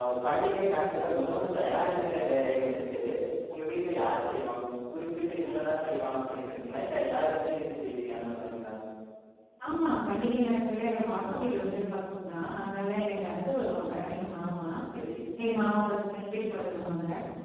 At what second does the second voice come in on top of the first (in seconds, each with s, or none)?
none